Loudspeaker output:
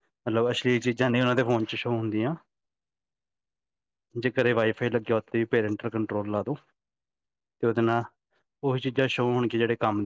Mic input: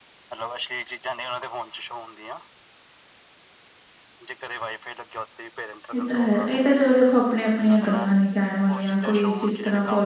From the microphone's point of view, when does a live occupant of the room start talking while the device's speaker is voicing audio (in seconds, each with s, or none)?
5.9 s